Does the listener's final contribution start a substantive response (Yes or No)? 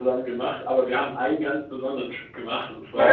Yes